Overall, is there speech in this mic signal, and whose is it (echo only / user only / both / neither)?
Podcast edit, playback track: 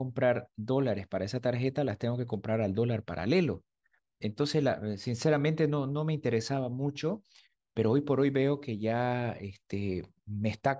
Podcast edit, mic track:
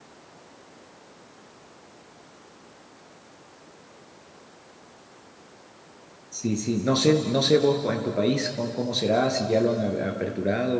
user only